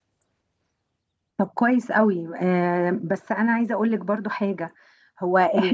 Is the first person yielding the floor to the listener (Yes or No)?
No